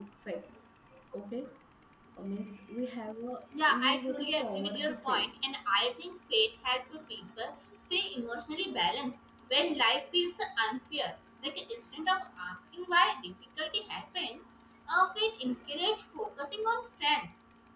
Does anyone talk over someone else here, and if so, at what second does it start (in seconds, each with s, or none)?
3.7 s